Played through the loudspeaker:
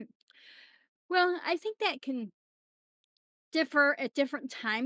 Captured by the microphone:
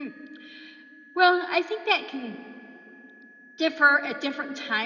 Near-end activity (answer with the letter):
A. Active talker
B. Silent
B